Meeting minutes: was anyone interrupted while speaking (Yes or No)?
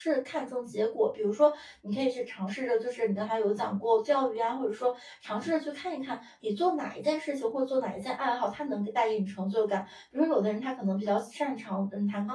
No